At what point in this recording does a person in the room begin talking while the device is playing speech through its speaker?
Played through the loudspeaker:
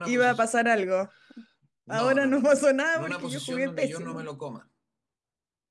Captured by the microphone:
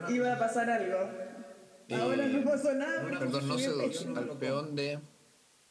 1.9 s

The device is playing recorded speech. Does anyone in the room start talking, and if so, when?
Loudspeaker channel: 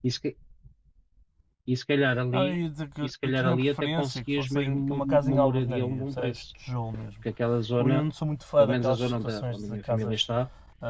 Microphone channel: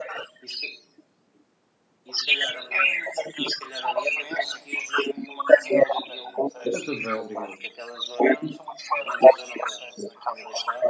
6.6 s

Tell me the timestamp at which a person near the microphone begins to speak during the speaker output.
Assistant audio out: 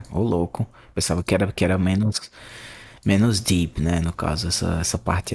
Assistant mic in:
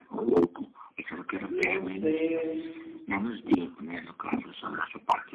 1.4 s

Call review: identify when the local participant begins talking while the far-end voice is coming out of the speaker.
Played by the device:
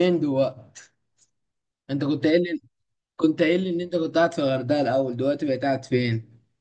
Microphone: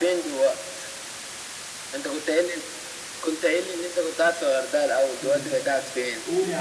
5.2 s

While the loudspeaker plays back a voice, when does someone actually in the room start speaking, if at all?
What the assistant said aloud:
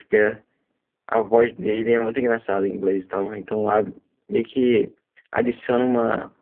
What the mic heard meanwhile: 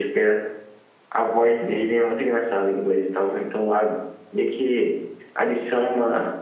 none

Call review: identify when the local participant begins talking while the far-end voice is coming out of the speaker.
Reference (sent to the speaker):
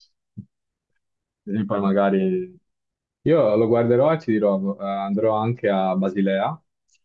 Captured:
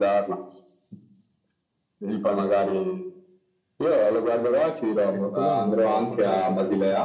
5.1 s

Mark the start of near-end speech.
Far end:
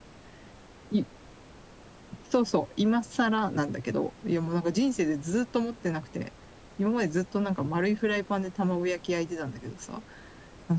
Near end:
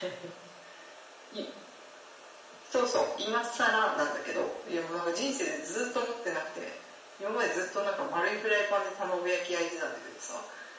none

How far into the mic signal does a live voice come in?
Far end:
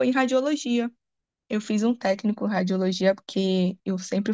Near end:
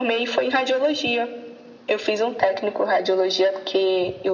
none

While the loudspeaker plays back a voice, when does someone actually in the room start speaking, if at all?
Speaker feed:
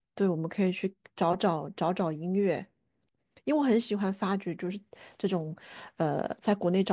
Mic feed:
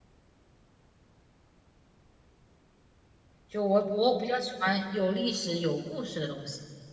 3.5 s

